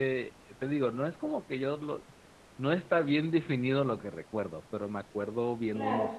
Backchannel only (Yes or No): Yes